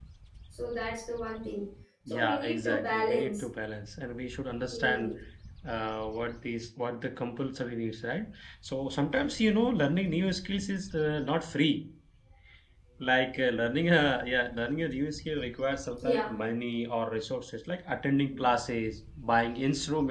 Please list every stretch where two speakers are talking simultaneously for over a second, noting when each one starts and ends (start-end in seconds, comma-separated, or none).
2.1-3.4